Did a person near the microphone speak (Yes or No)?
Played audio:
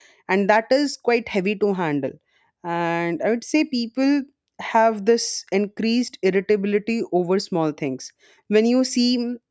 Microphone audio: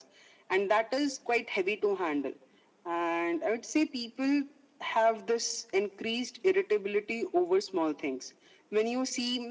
No